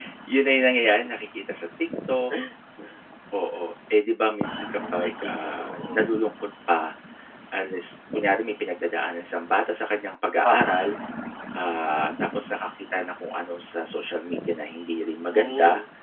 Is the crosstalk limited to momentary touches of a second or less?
No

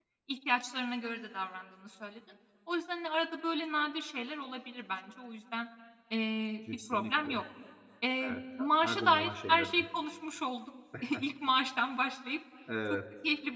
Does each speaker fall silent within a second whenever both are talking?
No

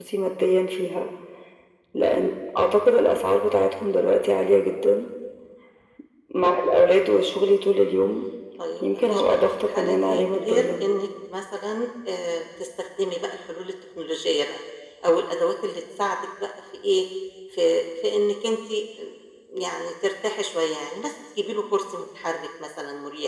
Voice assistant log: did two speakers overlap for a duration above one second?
Yes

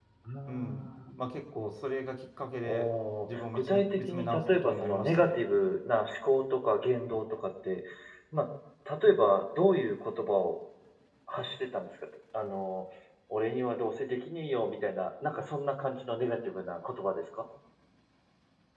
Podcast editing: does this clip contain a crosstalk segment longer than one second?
Yes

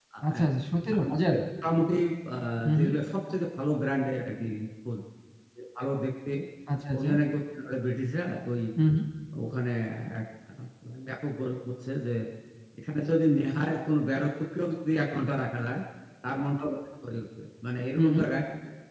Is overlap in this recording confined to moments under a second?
Yes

